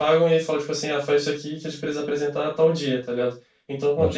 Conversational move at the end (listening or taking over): listening